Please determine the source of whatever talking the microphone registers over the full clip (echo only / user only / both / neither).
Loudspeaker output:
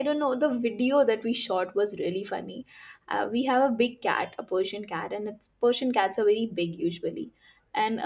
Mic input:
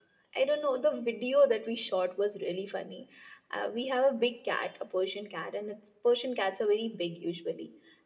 echo only